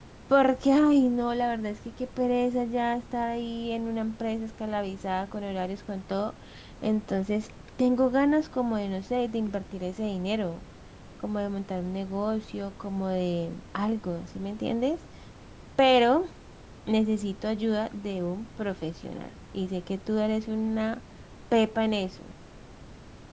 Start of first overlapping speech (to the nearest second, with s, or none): none